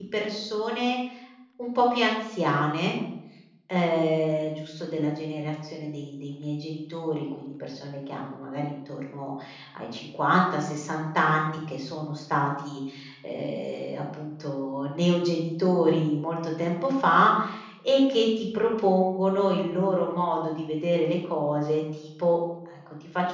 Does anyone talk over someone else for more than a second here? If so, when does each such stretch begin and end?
none

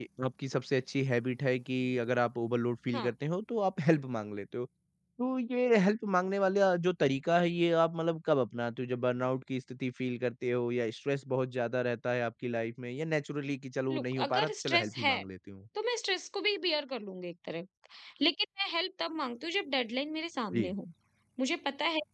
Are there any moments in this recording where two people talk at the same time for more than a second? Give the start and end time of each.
13.9-15.1

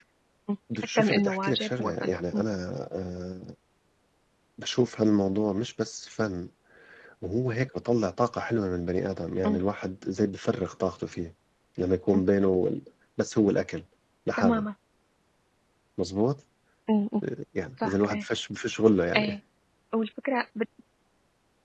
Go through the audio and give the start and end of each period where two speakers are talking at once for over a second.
1.0-2.4

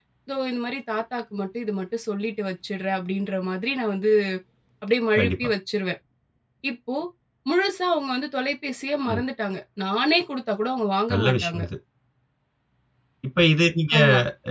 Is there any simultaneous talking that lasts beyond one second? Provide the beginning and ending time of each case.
none

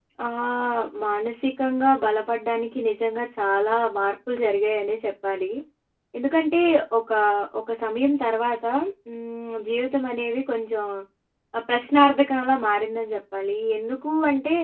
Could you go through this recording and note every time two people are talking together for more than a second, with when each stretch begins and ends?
none

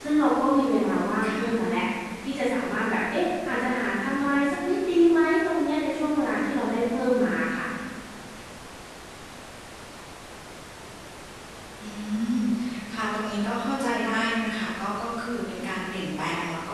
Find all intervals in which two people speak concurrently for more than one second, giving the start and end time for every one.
none

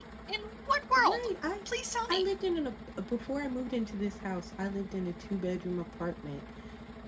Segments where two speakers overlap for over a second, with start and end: none

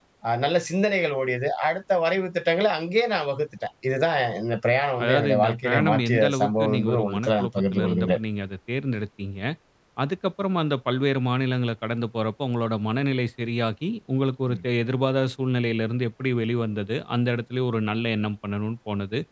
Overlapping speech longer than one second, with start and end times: 5.0-8.2

